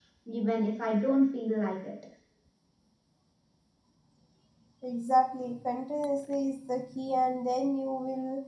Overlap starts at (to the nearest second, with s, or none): none